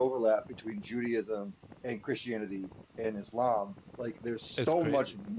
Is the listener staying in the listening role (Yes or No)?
Yes